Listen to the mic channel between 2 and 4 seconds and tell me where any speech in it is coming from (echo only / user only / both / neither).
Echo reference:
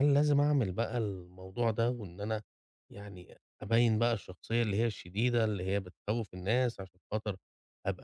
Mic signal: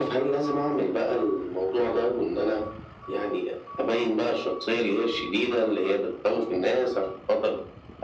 echo only